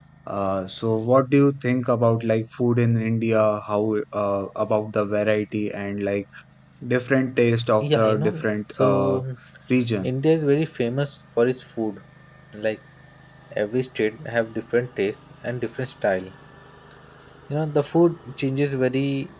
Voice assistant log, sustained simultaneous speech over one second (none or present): present